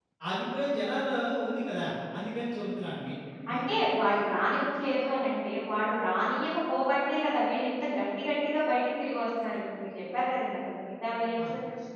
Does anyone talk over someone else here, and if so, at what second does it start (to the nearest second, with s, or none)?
none